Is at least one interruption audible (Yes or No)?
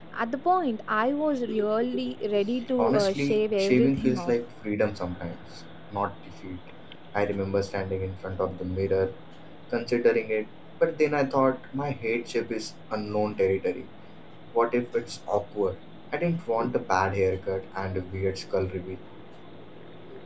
Yes